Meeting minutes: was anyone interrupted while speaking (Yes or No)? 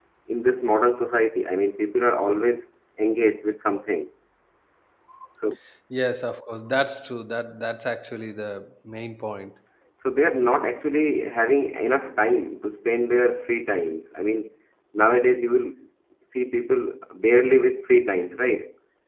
No